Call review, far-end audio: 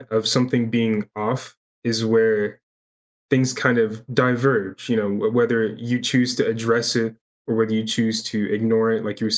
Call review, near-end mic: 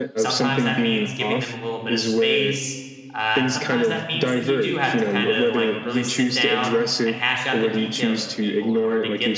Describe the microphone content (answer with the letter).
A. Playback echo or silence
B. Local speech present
B